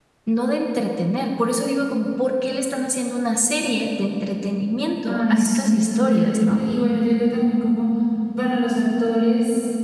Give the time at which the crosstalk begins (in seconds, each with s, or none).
5.0 s